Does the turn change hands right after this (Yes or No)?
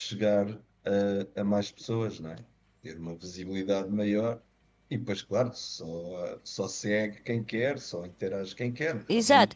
Yes